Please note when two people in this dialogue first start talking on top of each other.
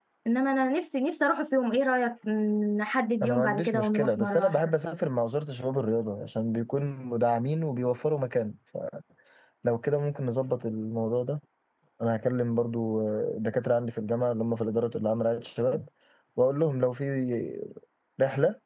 3.2 s

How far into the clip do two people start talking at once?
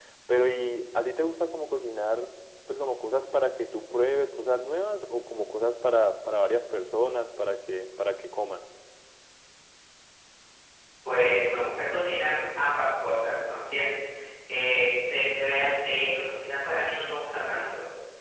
none

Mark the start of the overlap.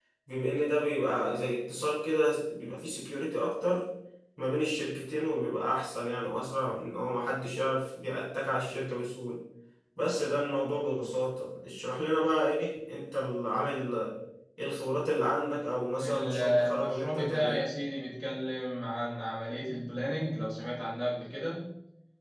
16.0 s

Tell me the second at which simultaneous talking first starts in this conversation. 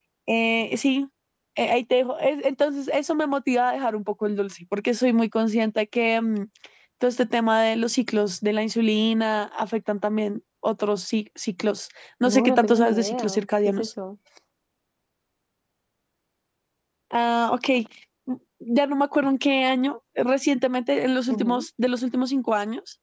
12.2 s

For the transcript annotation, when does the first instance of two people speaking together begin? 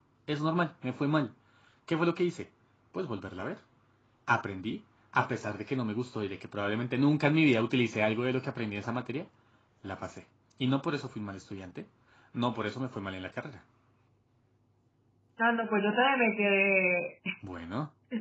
none

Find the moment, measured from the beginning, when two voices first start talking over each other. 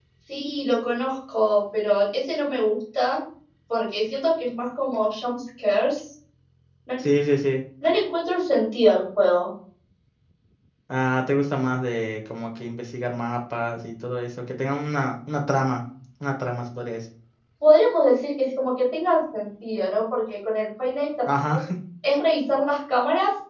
none

